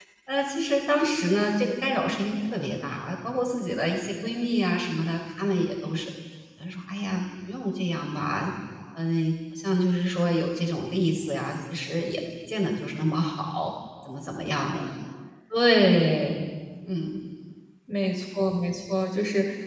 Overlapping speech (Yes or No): No